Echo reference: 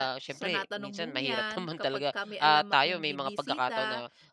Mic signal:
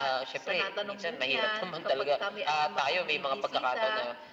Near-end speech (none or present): none